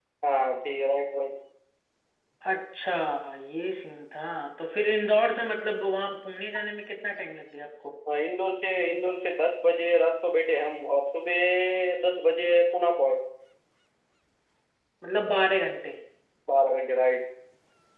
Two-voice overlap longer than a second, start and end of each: none

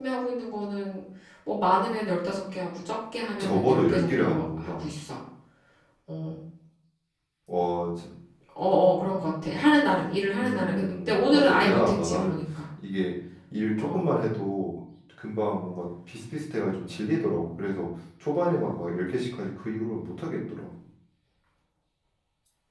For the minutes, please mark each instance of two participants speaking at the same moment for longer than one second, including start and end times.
3.4-4.8, 10.3-12.4

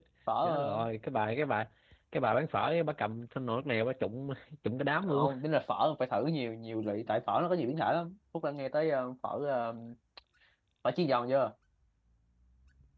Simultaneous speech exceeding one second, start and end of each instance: none

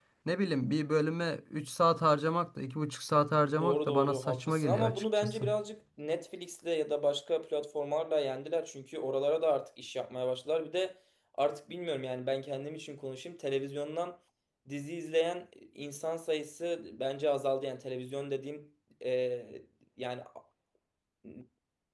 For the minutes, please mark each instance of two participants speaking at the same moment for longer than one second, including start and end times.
3.6-5.4

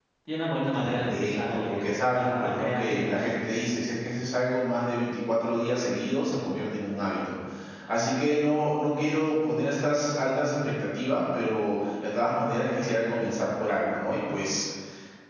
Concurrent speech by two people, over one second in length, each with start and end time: 0.7-3.5

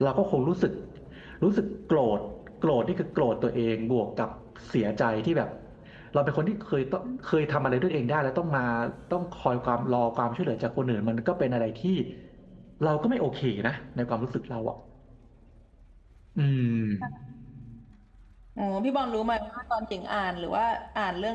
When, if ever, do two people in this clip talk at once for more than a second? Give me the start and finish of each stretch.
none

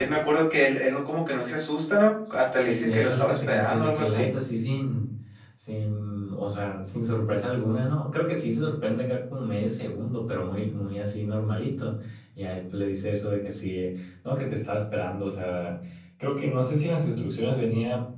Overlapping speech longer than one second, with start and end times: 2.3-4.3

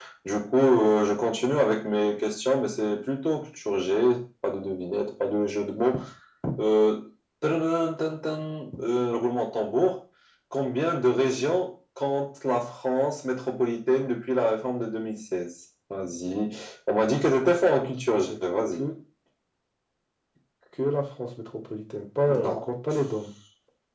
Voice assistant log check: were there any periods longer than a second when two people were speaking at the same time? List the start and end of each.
none

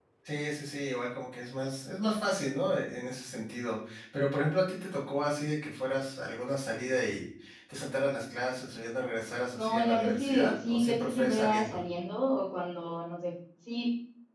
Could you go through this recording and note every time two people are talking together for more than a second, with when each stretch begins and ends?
9.6-11.8

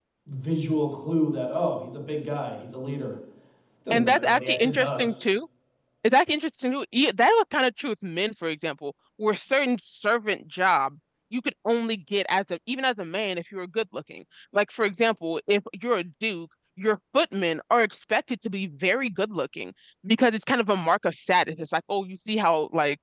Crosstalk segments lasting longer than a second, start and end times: 3.9-5.2

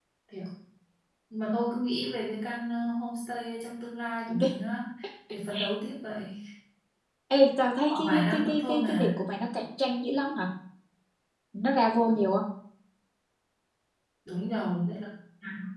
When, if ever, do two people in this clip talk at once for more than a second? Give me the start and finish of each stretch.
7.9-9.1

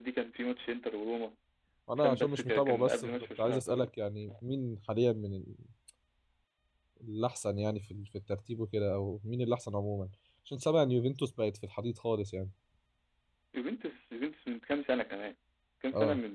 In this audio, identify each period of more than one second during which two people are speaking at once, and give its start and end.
2.0-3.9

